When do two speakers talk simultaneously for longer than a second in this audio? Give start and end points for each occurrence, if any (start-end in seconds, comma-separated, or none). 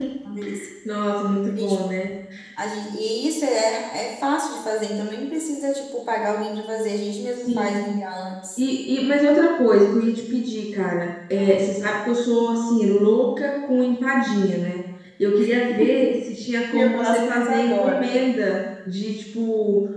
16.7-18.2